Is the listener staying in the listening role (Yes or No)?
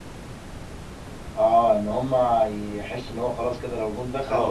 No